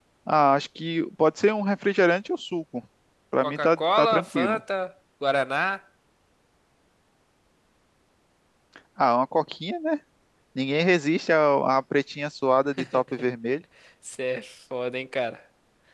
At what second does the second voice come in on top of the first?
3 s

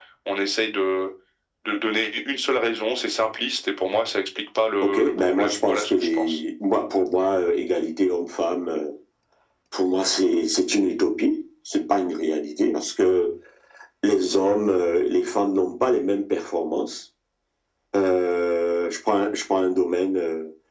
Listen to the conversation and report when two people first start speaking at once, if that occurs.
5 s

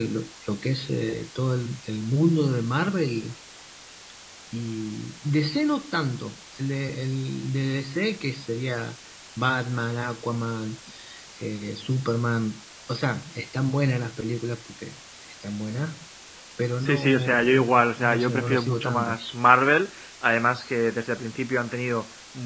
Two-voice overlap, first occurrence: 17 s

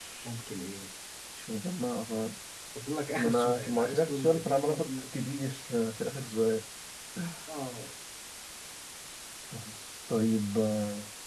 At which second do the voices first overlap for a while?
3 s

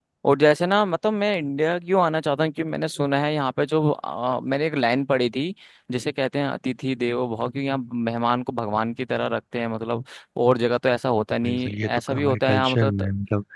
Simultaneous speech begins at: 11 s

